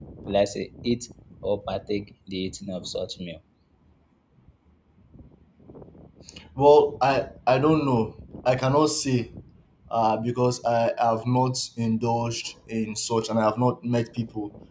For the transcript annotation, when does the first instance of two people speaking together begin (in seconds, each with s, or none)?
none